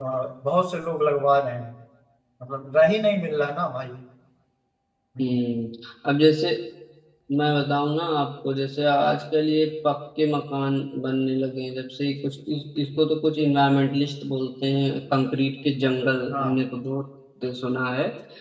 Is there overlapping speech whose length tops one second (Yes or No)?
No